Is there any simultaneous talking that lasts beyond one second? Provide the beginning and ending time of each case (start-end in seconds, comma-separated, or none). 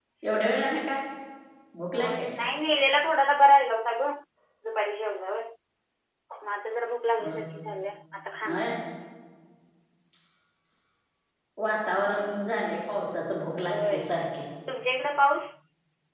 none